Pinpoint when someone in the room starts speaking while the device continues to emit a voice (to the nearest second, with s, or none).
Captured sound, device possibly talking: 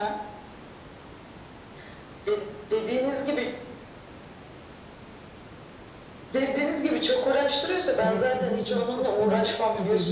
8 s